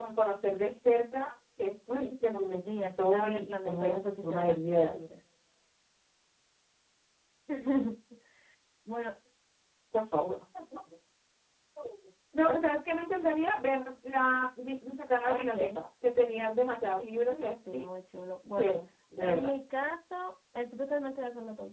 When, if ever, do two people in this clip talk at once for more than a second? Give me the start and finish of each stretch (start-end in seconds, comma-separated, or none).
2.7-5.0